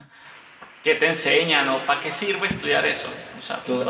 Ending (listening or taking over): taking over